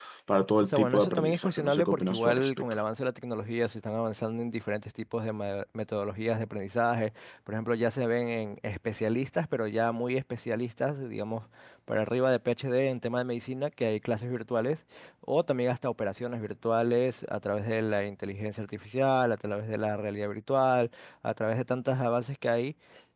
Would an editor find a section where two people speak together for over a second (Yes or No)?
Yes